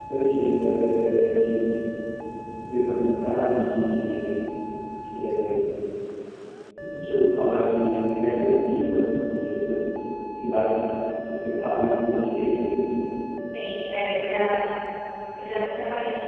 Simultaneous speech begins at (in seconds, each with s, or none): none